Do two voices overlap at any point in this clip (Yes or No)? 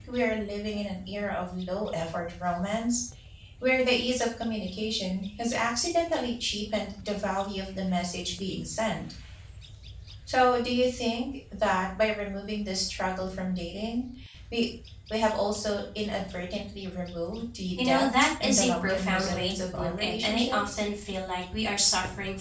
Yes